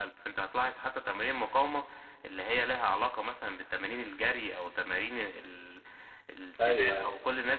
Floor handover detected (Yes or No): No